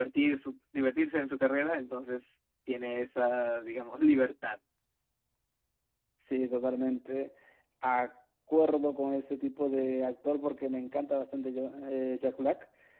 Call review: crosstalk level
none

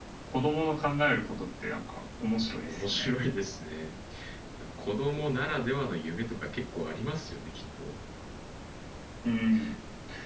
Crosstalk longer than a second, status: none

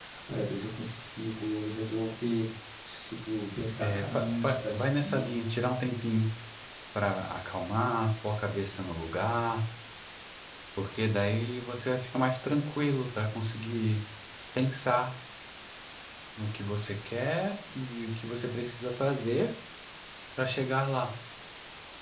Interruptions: present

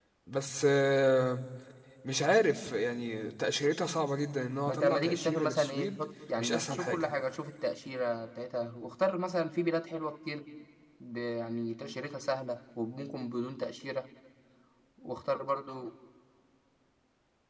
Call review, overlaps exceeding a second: present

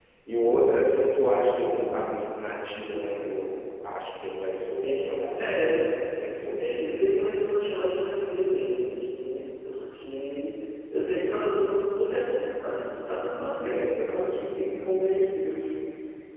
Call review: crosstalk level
present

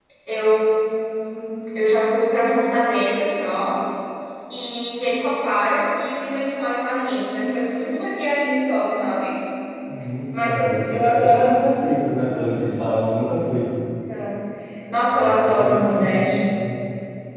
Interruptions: present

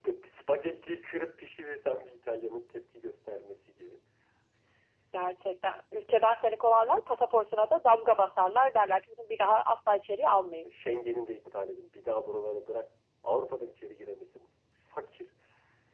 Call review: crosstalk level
none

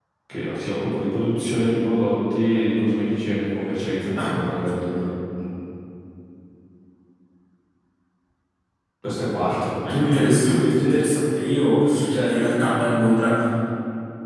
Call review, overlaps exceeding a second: present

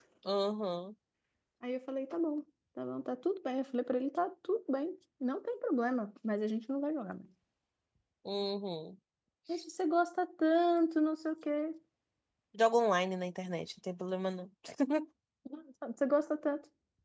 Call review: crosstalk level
none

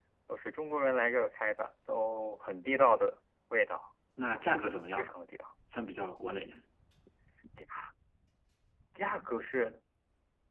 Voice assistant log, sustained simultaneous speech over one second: none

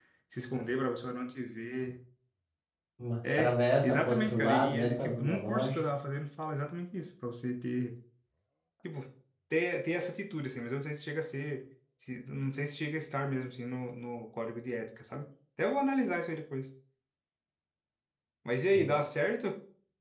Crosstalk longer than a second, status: present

